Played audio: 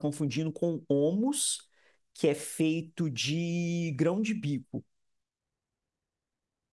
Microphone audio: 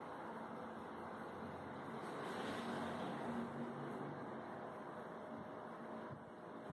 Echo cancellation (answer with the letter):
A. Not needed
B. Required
A